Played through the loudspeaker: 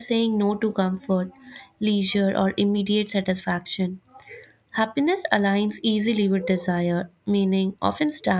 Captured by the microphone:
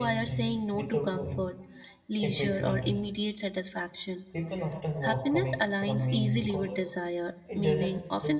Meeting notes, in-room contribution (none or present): present